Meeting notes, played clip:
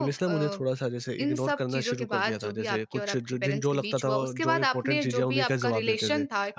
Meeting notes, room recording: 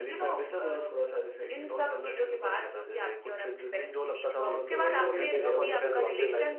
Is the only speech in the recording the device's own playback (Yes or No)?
No